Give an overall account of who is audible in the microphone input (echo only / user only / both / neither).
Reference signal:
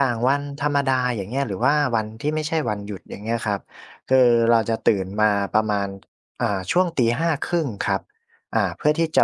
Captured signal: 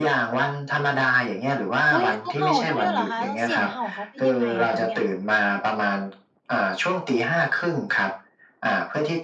both